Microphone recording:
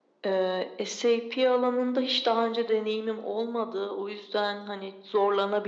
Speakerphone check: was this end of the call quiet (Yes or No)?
Yes